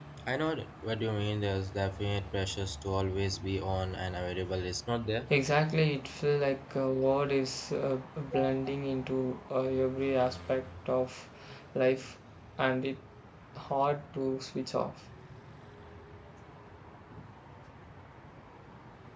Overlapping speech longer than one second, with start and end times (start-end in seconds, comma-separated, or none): none